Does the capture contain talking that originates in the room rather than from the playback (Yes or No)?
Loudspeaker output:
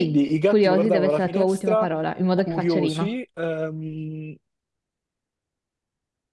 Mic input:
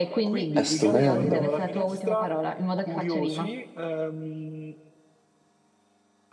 Yes